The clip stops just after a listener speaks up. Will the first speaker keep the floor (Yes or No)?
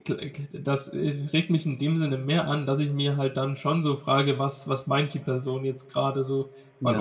Yes